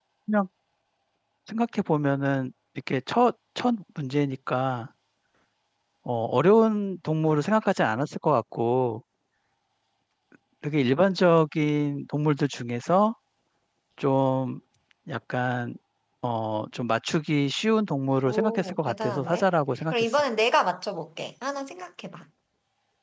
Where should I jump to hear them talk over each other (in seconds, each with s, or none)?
18.3 s